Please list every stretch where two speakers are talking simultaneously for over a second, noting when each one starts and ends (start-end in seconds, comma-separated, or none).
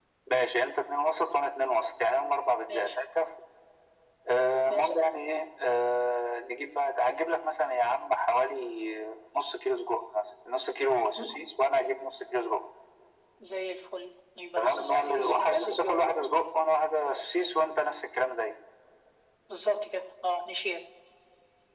14.6-16.0